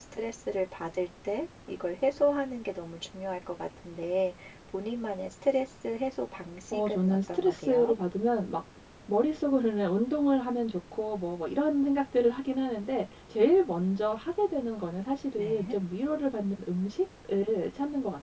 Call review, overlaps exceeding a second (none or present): present